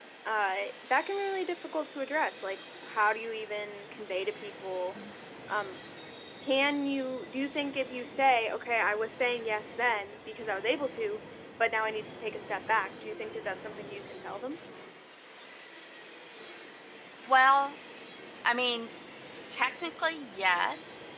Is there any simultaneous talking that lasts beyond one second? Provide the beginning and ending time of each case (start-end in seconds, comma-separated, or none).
none